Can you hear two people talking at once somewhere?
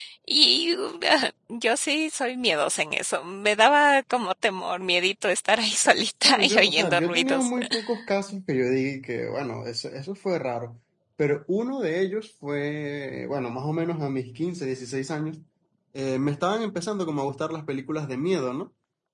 Yes, from 6.2 s

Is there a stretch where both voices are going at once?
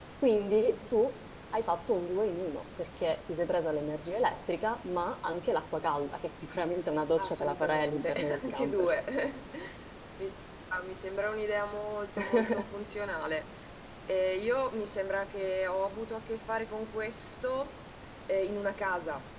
Yes, from 7.2 s

